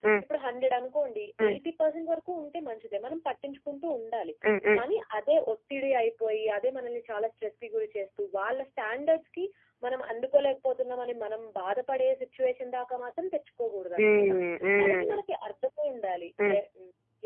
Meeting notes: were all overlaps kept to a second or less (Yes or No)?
Yes